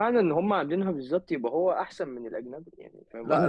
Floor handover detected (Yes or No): Yes